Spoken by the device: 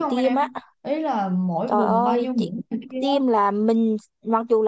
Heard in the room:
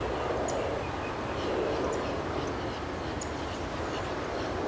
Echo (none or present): none